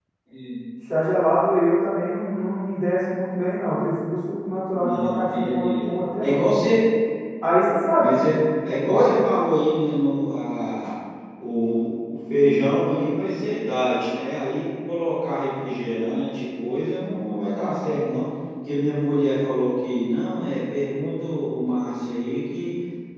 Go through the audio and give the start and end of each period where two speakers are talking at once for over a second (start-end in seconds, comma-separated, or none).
4.7-6.4